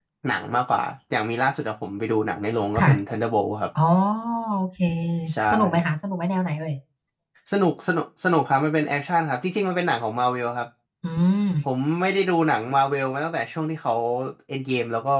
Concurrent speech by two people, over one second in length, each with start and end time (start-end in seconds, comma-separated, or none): none